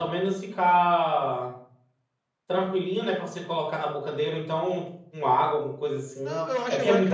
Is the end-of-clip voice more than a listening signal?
Yes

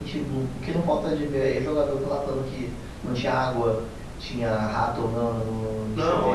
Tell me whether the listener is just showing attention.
No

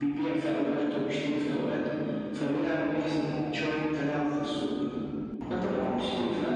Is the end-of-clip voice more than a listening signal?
No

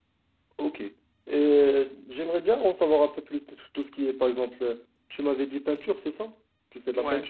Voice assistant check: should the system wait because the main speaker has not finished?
No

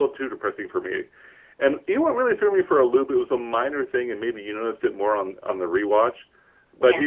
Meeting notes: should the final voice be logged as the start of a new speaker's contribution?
No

